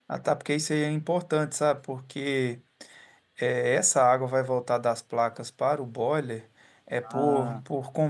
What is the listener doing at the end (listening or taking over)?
listening